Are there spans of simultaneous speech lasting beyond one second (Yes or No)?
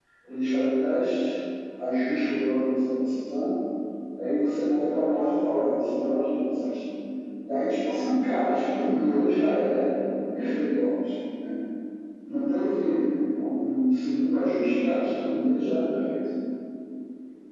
No